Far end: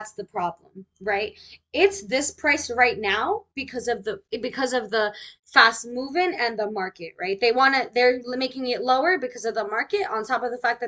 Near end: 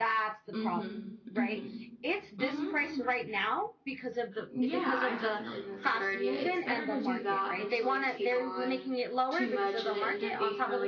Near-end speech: present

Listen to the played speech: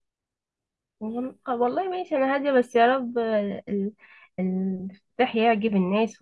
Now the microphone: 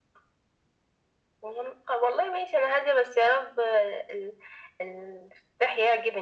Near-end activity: none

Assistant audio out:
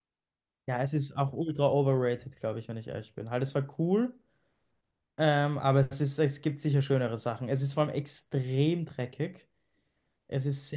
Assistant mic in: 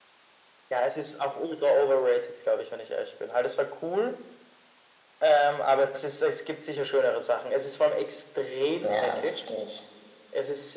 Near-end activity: present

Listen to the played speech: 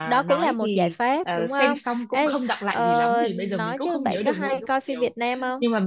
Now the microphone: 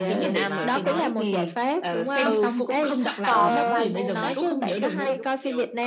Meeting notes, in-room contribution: present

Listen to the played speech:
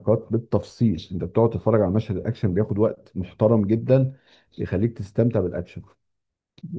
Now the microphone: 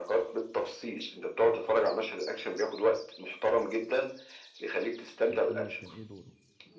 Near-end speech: present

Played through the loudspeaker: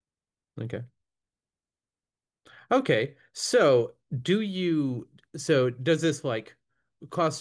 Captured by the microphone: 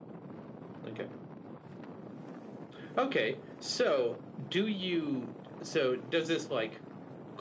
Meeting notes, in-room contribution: none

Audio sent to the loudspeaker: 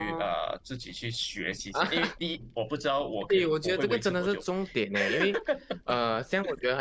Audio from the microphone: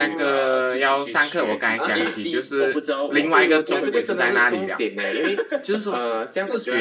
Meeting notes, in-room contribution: present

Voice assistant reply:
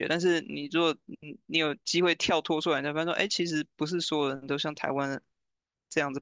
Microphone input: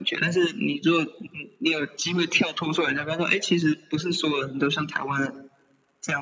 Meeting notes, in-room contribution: none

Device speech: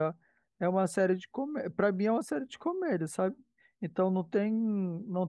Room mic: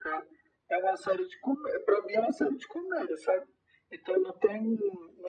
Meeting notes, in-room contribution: none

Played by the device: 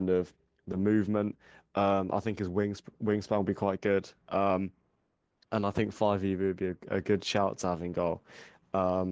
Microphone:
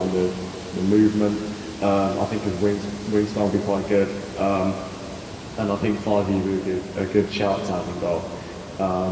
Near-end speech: none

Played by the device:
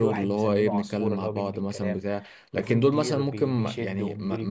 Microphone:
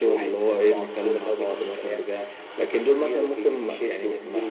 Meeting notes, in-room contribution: none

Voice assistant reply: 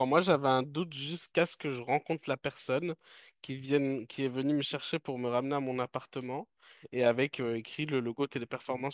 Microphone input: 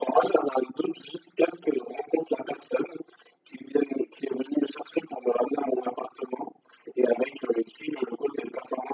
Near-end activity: none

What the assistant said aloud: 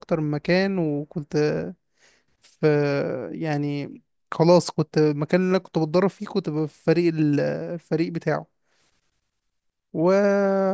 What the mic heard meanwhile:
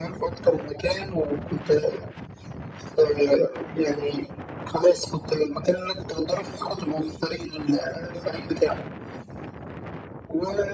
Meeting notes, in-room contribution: none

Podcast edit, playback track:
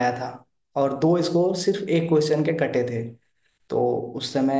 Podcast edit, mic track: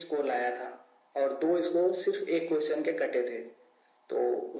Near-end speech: none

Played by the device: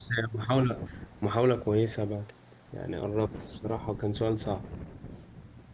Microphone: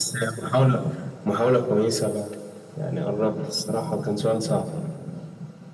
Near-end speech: none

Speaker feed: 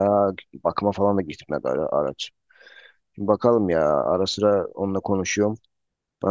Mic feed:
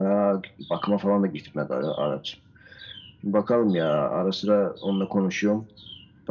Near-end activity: none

